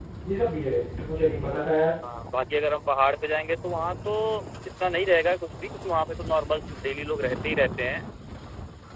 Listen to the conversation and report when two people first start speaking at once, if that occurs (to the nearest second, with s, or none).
none